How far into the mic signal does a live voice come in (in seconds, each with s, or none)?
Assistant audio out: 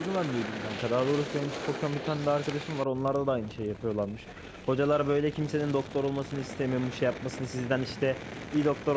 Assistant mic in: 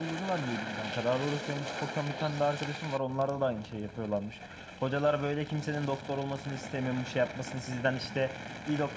none